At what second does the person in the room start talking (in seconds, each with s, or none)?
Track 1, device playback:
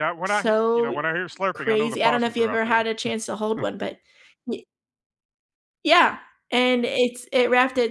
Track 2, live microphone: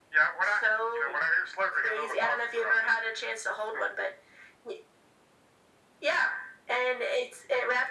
none